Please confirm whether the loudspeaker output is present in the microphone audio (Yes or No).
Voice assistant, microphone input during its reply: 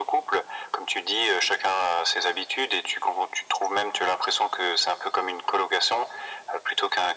Yes